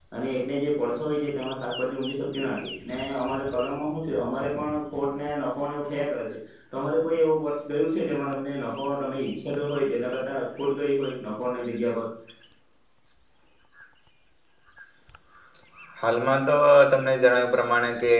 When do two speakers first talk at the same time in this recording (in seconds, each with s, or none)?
none